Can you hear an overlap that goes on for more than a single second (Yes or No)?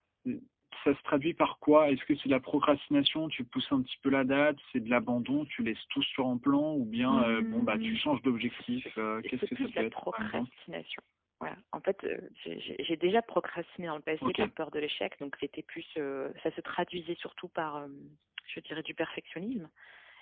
Yes